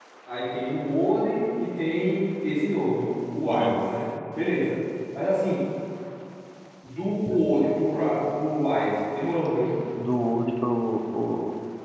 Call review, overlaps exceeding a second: none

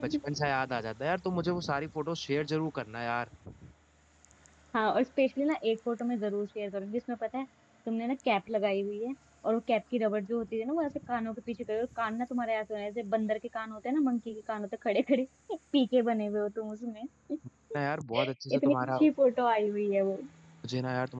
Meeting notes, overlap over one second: none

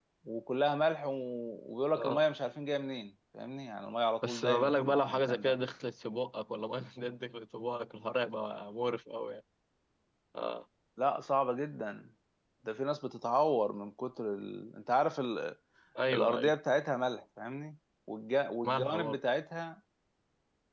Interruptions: present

